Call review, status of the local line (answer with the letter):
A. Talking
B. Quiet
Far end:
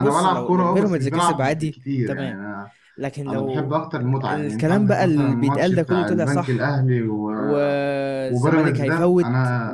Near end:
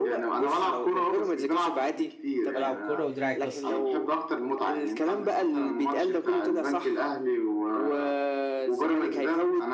A